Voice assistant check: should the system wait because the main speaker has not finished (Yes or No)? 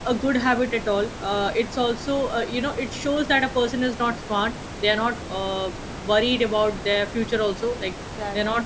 Yes